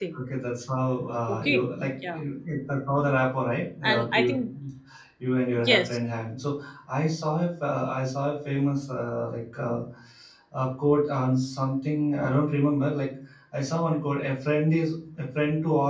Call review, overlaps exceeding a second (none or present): none